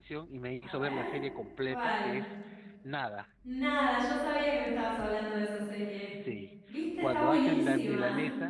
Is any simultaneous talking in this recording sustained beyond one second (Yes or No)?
Yes